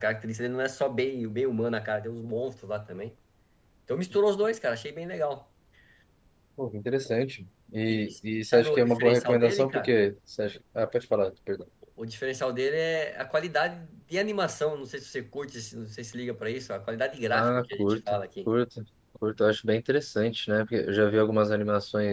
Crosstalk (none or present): present